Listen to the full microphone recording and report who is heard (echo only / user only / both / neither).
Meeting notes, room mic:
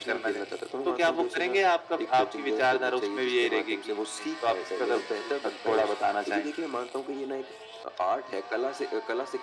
echo only